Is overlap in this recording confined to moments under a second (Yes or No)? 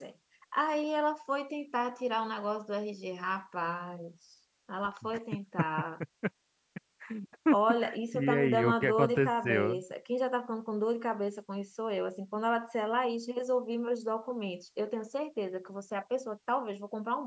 No